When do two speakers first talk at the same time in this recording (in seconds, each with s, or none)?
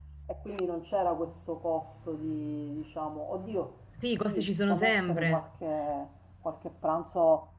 4.0 s